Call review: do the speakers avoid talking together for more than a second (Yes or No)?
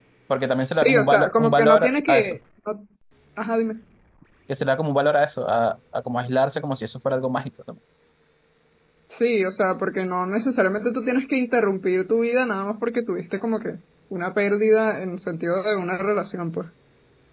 No